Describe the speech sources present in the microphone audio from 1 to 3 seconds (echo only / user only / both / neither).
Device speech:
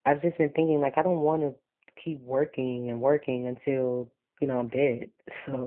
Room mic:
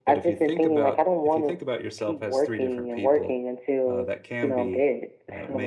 both